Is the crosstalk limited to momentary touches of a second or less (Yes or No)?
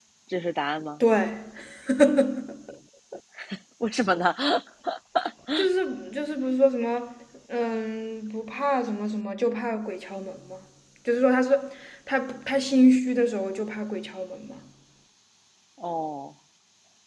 Yes